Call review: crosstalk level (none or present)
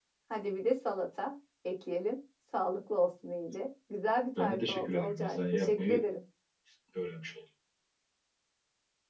present